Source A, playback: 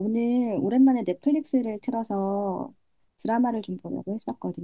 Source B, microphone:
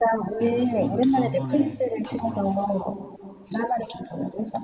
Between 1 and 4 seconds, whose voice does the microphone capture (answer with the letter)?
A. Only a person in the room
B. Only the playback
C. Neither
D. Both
D